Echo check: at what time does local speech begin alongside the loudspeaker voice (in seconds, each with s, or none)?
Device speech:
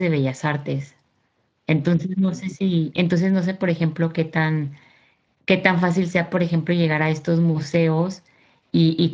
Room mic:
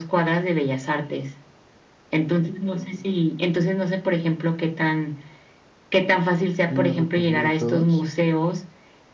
6.7 s